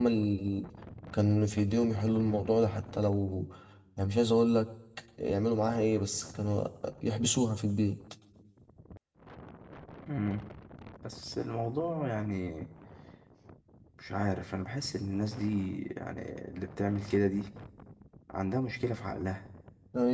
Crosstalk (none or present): none